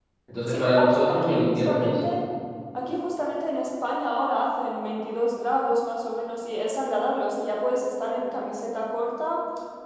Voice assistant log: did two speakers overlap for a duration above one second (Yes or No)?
Yes